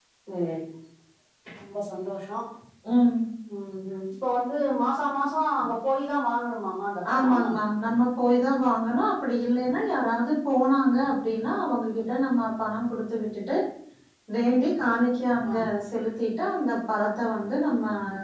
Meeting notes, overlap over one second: none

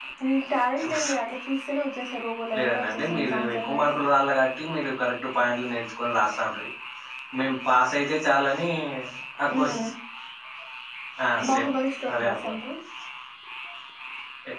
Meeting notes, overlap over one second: present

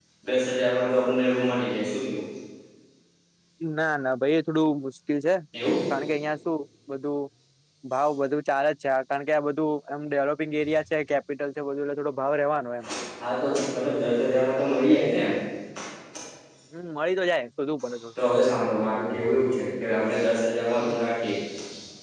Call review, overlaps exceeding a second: none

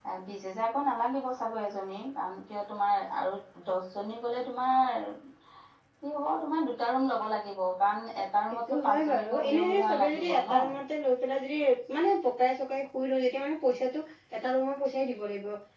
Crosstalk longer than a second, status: present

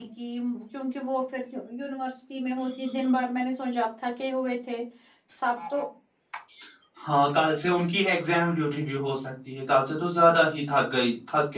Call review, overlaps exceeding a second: none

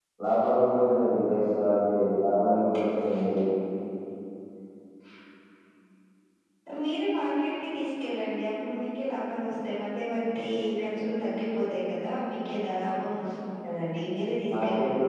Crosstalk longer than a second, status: none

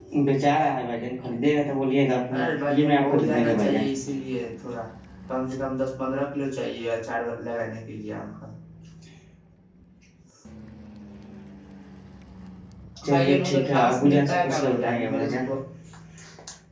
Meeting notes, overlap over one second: present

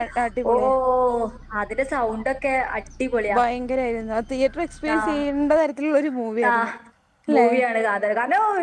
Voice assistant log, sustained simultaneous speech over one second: none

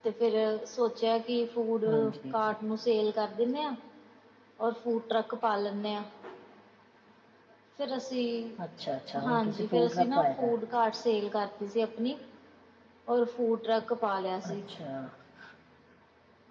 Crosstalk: present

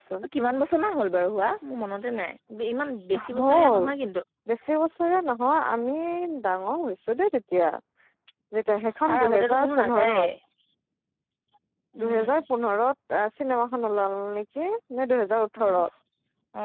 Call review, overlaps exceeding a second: present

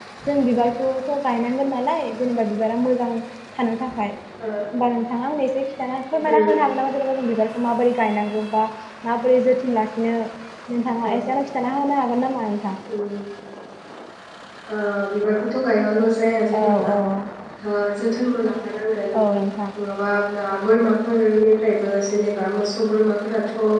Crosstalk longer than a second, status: none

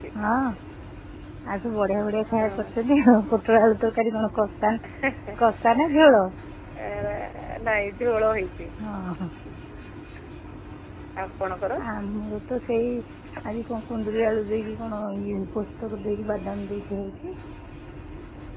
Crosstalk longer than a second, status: none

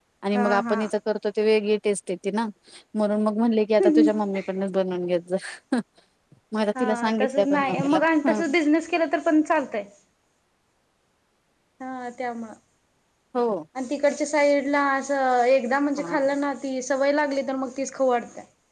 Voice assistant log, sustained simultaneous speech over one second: present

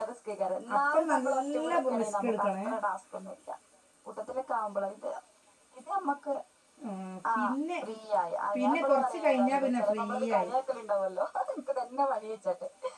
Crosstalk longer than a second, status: present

